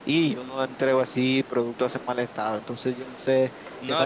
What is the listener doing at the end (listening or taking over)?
taking over